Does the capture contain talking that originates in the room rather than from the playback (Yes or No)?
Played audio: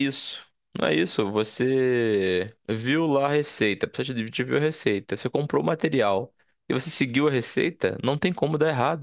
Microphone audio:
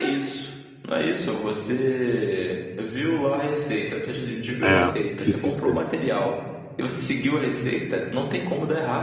Yes